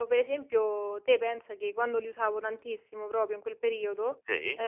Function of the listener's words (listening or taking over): listening